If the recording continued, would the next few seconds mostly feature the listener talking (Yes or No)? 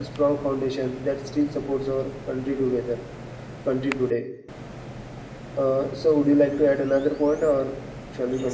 Yes